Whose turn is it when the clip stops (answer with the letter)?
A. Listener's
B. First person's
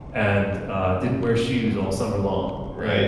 B